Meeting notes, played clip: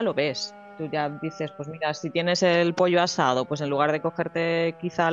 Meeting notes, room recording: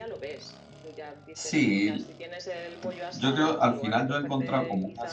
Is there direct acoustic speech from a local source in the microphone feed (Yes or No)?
Yes